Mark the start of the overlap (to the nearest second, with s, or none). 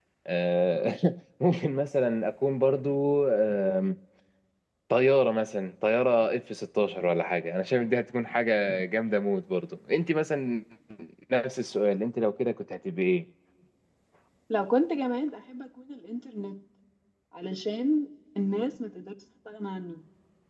none